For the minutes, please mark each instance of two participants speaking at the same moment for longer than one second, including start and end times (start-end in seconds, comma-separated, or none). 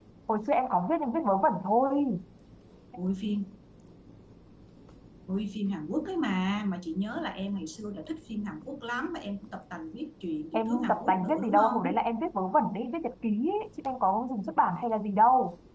10.5-11.8